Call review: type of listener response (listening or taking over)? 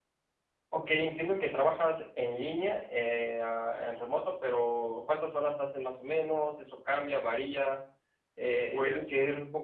listening